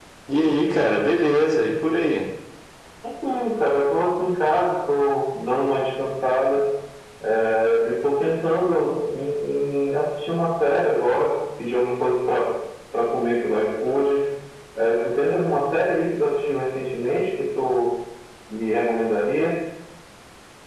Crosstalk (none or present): none